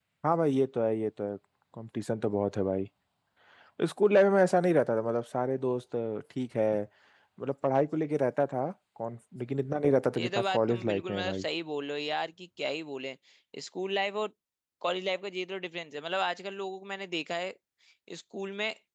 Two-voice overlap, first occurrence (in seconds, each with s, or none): 10.2 s